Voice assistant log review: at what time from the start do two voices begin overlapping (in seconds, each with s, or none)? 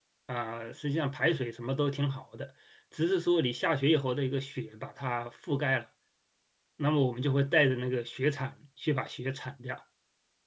none